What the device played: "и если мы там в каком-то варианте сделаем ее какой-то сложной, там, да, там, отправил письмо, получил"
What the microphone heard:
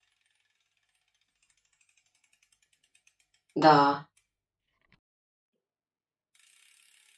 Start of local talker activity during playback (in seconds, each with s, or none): 3.5 s